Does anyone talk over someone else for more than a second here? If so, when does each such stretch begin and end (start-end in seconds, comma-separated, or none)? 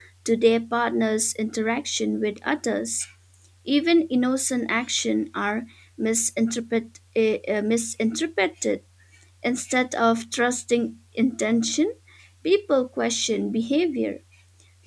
none